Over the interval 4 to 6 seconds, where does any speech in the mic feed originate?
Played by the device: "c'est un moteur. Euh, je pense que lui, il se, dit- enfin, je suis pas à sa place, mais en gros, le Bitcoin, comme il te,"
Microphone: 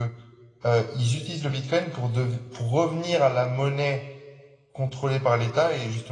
user only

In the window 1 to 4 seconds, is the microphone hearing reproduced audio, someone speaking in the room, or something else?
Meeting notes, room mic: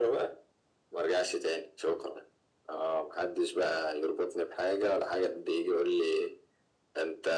echo only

